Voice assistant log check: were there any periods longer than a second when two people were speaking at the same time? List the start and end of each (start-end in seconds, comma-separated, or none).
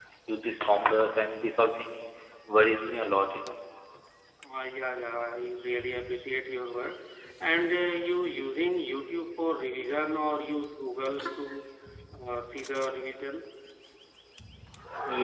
none